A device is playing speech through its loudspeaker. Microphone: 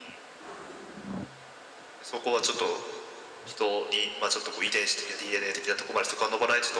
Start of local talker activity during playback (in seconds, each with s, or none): none